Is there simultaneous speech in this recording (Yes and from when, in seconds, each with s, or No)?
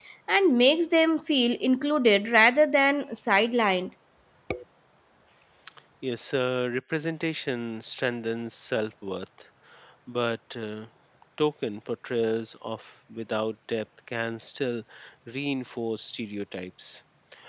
No